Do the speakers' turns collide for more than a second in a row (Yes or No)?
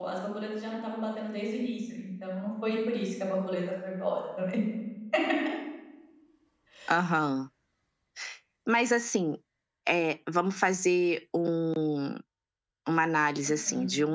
No